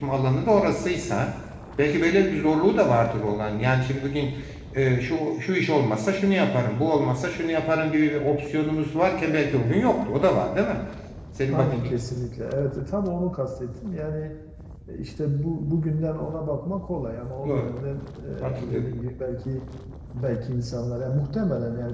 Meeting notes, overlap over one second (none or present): none